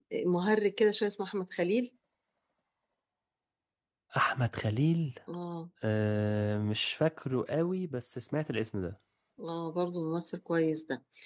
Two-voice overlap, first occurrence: none

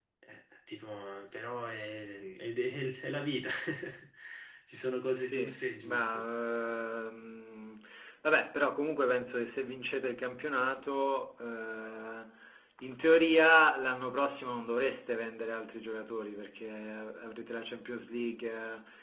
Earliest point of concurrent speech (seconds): 5.0 s

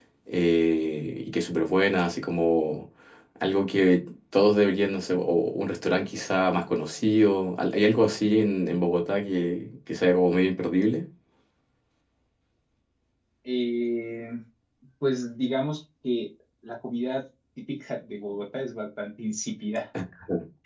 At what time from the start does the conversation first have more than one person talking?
none

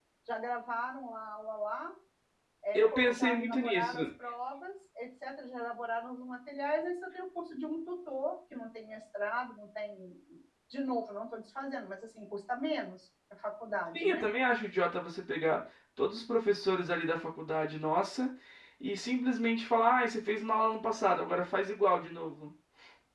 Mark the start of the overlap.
2.7 s

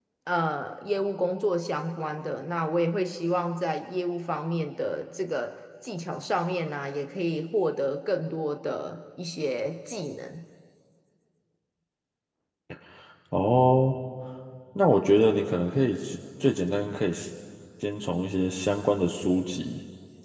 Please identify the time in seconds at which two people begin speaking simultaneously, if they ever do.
none

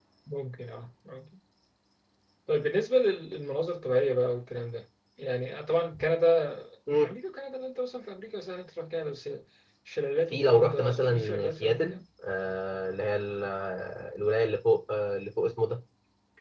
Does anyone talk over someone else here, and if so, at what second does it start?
10.3 s

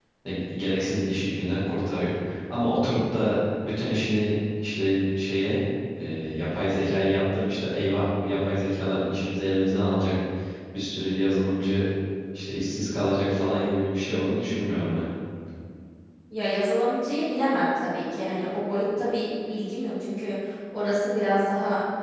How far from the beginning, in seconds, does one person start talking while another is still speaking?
none

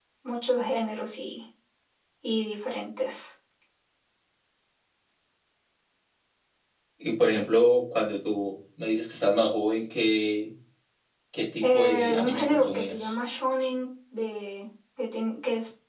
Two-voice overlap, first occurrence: 11.6 s

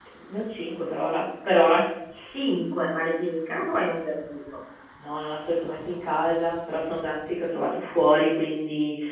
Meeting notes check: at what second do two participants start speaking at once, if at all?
none

